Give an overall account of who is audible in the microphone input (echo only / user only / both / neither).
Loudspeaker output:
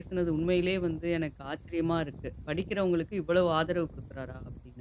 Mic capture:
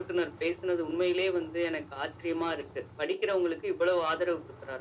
echo only